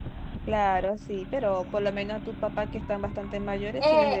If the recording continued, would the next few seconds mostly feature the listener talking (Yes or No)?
Yes